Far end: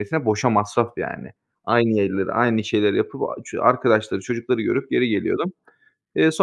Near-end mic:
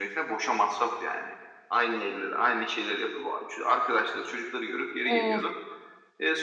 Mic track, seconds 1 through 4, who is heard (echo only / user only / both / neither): echo only